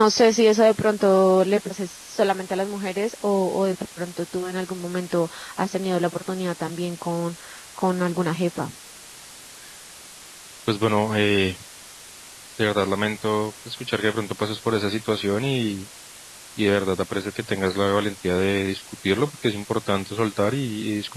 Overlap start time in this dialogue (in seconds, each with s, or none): none